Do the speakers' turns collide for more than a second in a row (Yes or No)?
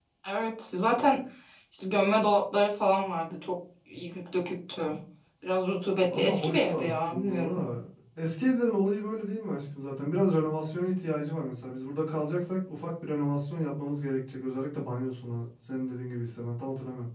Yes